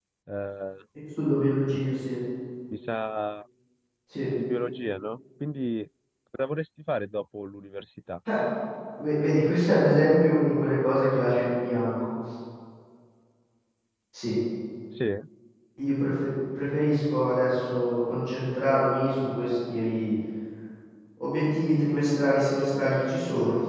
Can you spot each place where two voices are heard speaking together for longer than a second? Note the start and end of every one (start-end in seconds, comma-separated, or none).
none